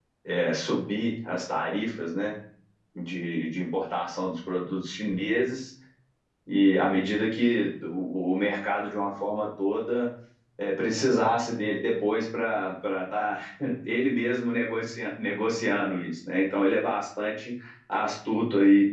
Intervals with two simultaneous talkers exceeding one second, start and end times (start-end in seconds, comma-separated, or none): none